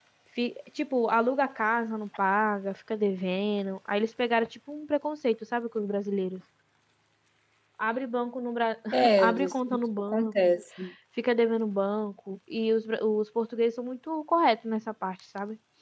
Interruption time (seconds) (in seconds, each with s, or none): 9.2 s